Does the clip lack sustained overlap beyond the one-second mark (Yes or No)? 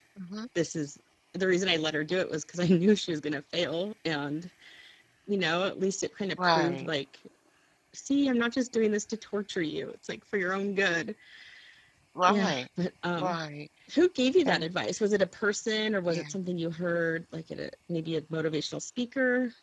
Yes